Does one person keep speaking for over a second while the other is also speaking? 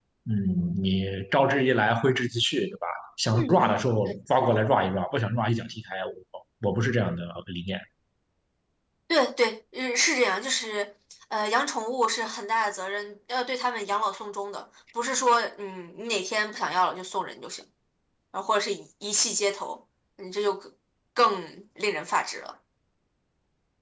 No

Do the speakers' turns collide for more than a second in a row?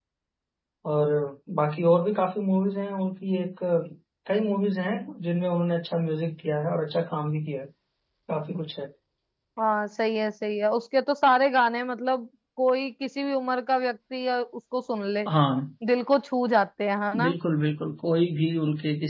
No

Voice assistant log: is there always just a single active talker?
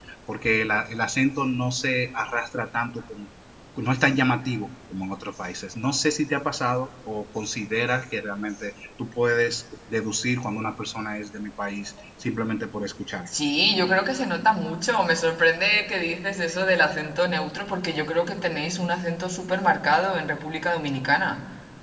Yes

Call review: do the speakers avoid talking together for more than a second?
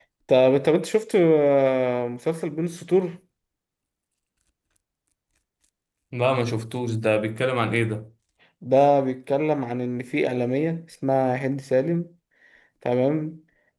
Yes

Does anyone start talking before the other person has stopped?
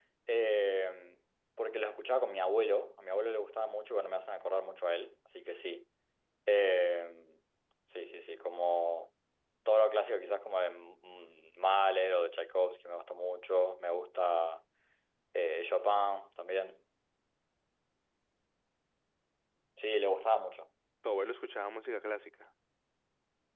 No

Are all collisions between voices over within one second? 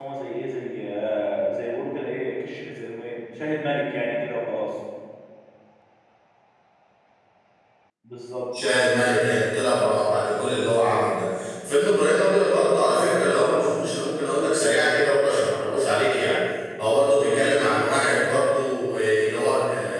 Yes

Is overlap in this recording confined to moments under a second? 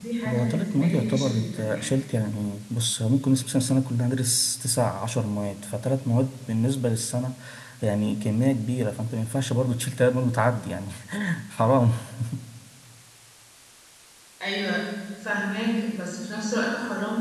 No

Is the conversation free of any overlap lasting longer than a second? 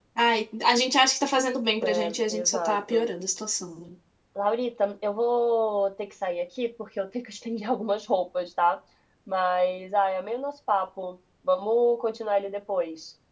No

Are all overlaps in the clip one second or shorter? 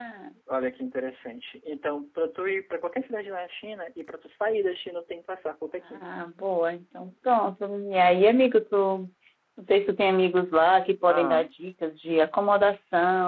Yes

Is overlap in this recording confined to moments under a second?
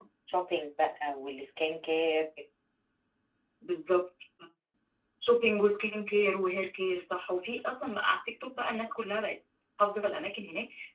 Yes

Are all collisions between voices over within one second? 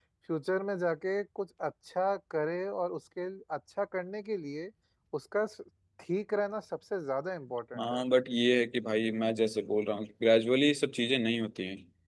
Yes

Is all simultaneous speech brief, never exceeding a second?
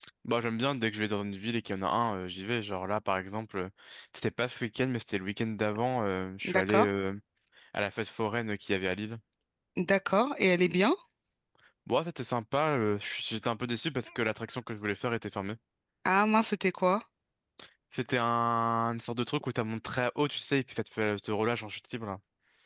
Yes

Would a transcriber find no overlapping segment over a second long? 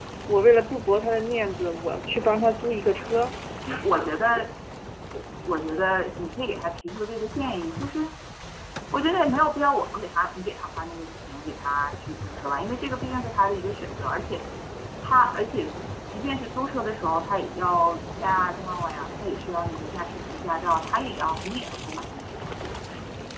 Yes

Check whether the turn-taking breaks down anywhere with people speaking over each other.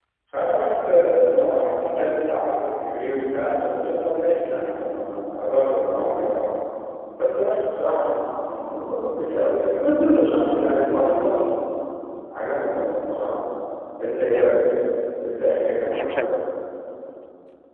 Yes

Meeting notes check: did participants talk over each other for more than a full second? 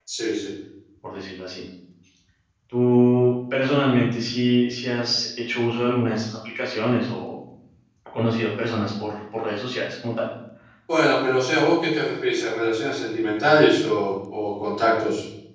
No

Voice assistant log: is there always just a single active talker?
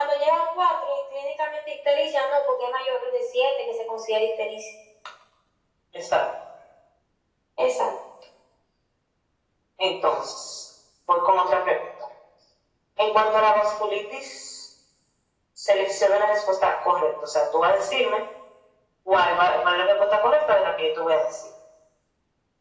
Yes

